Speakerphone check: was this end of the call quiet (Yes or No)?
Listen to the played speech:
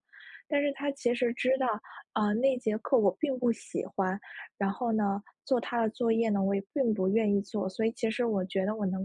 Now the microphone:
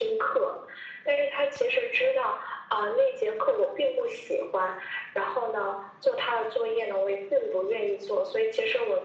Yes